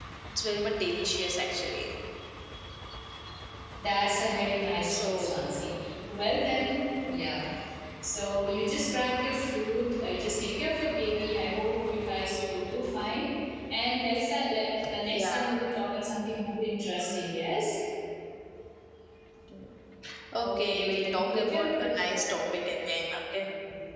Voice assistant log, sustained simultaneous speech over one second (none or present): present